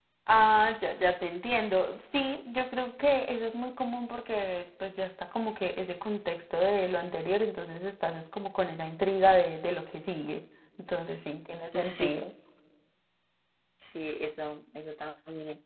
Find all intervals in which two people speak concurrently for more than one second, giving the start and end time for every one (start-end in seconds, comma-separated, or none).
none